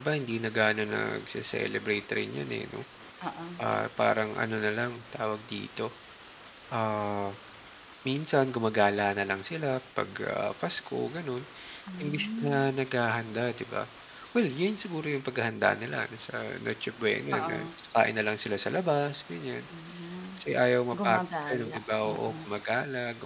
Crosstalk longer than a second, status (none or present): present